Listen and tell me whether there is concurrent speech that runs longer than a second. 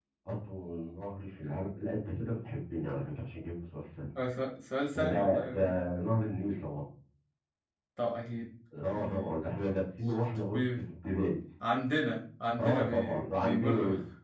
Yes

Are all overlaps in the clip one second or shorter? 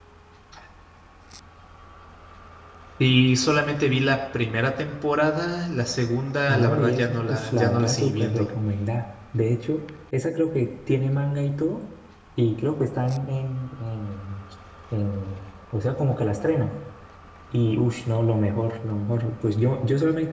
No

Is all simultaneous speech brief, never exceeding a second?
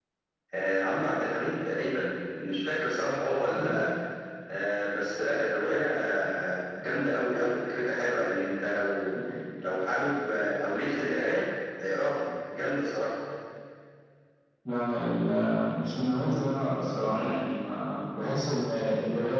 Yes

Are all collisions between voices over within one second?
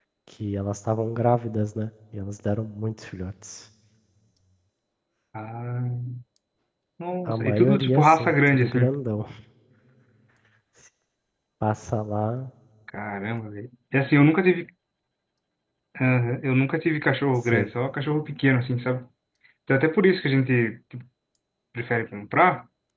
No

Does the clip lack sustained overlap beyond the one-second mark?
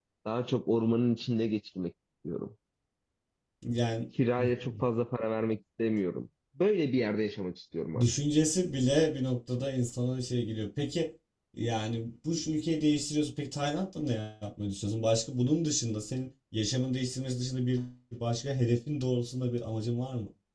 Yes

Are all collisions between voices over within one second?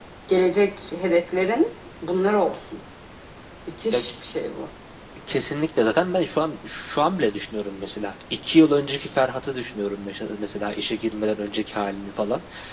Yes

